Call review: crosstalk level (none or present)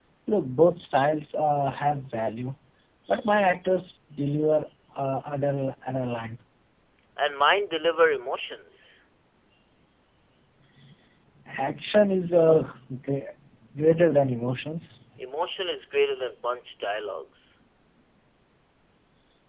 none